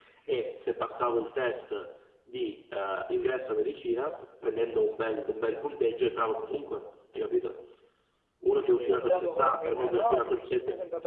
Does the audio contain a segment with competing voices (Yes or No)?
Yes